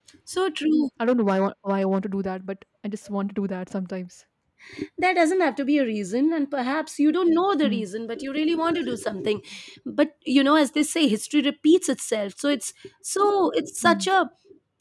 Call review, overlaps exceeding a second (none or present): none